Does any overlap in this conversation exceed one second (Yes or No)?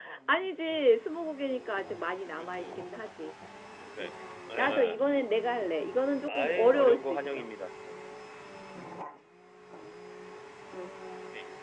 Yes